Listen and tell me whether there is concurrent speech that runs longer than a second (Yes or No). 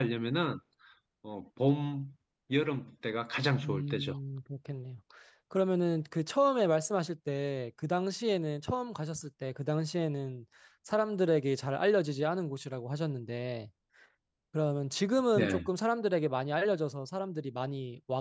No